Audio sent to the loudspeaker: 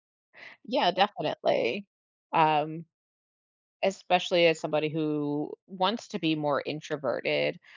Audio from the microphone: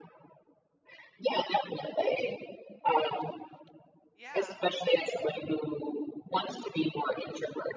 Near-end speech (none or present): present